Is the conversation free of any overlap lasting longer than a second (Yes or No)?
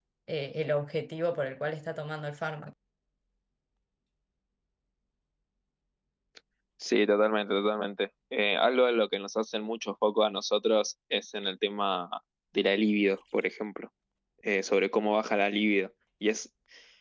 Yes